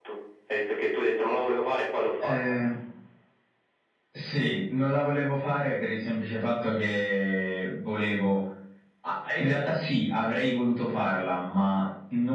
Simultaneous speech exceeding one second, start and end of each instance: none

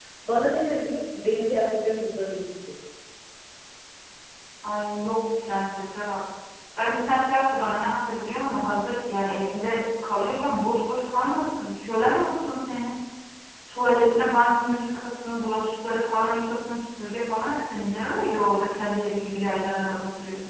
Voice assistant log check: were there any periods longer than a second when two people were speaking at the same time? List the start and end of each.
none

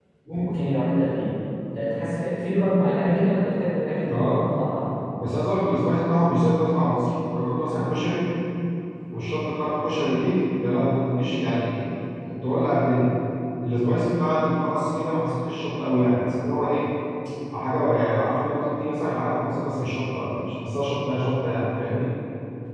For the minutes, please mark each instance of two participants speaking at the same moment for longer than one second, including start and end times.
none

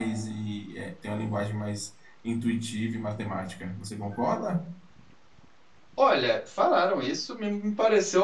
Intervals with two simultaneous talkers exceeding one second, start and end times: none

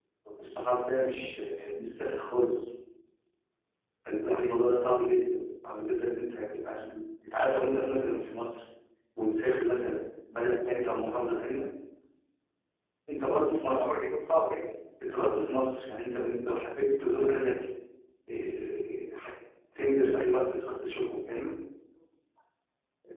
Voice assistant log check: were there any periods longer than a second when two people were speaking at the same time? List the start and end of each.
none

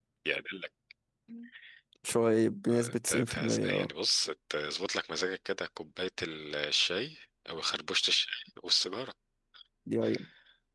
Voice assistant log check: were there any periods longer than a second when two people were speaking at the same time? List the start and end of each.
2.7-3.9

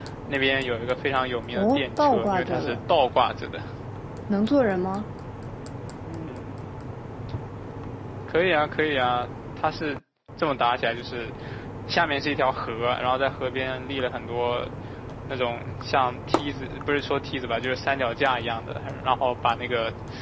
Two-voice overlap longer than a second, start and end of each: 1.5-2.8

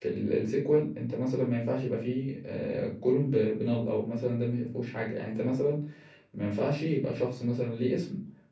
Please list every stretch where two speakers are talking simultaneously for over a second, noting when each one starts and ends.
none

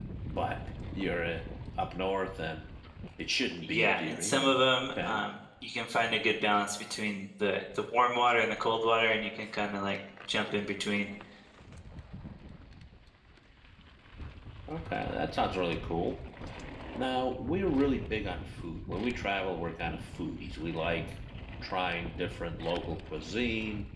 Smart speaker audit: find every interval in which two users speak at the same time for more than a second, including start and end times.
3.6-5.2

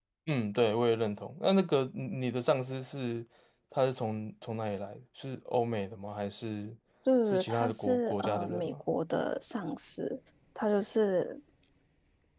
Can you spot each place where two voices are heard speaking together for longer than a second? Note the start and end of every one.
7.2-8.7

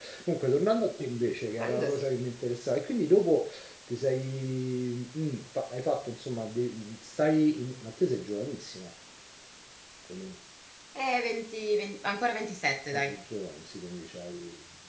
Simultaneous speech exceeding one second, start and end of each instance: none

